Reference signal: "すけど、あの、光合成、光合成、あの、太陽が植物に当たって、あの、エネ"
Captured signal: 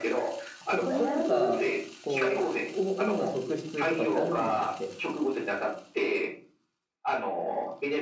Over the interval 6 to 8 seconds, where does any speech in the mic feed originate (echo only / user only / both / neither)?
echo only